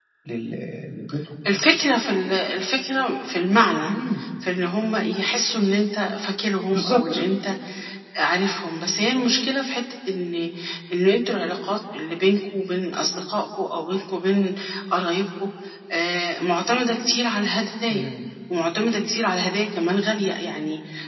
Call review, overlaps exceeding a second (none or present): none